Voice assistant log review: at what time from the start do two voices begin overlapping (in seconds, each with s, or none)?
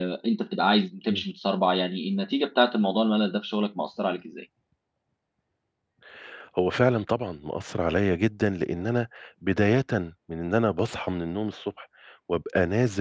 none